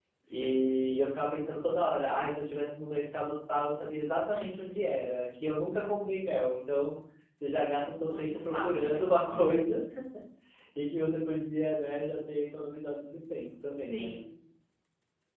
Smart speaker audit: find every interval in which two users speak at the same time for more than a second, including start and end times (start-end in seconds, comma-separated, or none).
8.1-9.8